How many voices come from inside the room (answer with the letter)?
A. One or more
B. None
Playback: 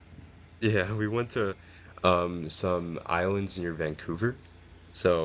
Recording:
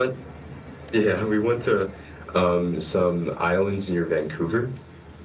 B